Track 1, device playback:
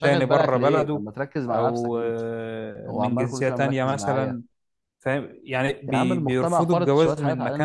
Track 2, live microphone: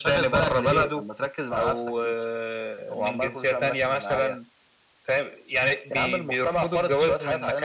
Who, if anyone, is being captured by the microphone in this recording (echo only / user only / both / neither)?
echo only